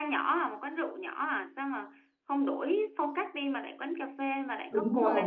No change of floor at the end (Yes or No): No